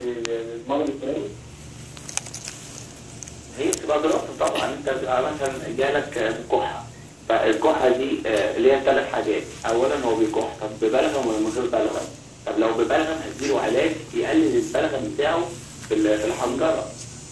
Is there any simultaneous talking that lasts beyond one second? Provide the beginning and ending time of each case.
none

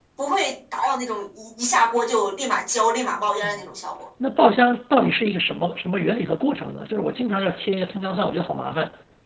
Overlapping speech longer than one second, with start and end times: none

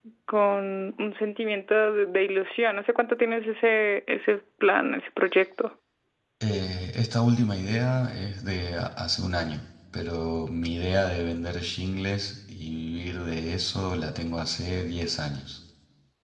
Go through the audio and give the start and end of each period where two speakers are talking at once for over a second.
none

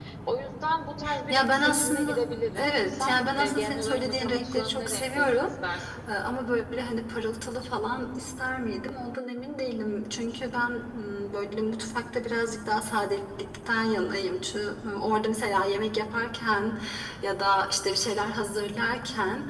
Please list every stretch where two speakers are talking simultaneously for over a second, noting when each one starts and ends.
1.3-5.5

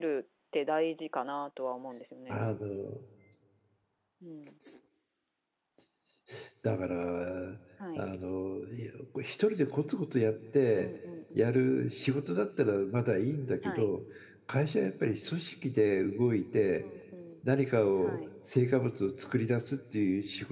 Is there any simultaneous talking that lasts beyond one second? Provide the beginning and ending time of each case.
none

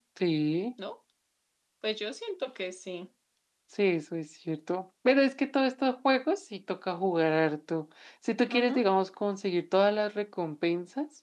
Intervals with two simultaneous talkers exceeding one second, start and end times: none

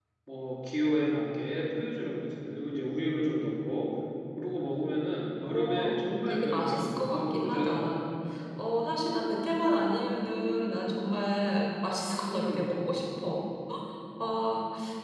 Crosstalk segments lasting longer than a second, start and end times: 5.4-8.0

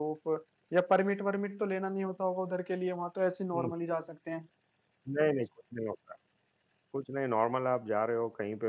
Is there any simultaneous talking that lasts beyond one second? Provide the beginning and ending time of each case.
none

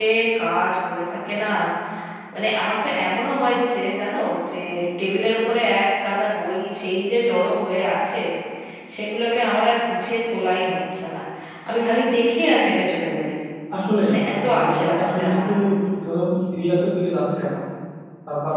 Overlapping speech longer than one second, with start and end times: 14.0-15.5

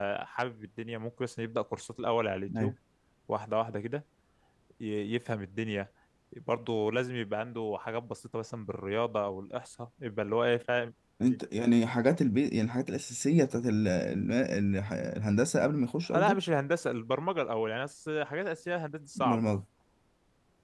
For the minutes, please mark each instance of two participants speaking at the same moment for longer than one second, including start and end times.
none

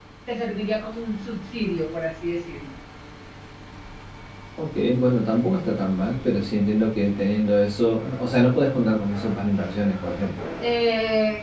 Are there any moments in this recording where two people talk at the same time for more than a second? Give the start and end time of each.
none

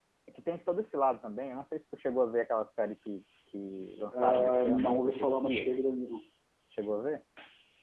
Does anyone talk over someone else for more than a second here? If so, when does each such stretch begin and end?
4.2-5.7

